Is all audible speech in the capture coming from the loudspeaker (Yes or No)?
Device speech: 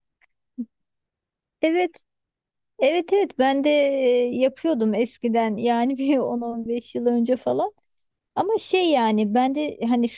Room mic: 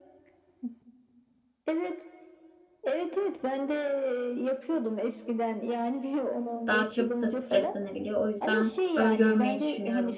No